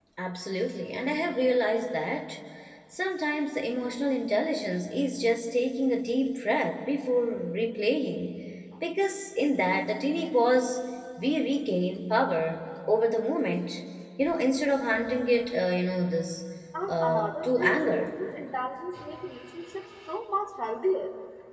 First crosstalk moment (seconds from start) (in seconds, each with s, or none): 16.9 s